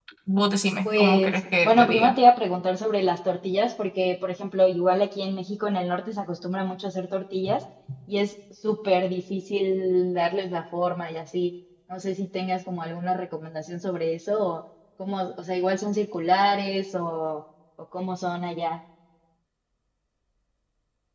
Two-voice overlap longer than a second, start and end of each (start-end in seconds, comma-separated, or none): 0.8-2.1